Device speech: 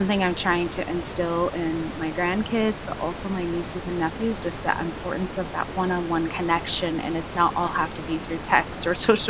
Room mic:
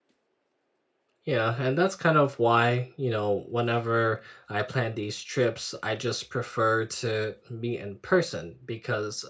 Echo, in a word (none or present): none